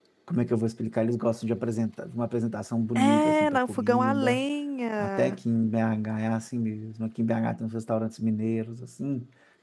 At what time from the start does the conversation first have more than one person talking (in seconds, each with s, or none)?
3.0 s